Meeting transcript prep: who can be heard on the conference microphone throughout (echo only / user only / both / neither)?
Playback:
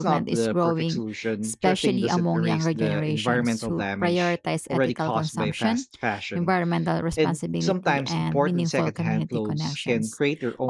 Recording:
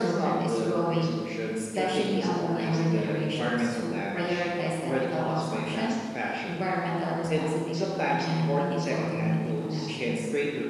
echo only